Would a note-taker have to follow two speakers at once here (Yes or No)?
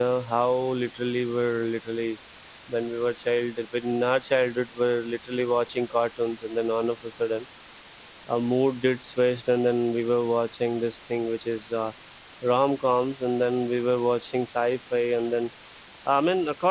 No